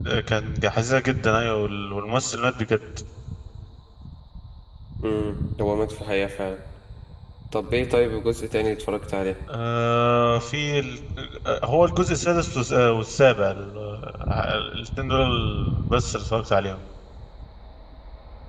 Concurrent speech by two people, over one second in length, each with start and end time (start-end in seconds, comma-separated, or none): none